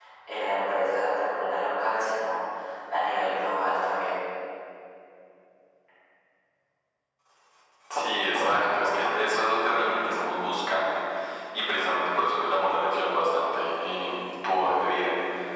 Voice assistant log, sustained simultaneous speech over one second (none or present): none